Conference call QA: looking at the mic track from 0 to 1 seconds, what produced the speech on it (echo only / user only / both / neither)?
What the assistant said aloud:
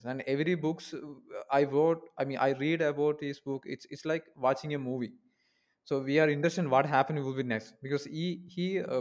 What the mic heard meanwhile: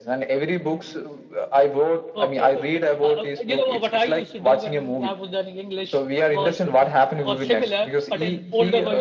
echo only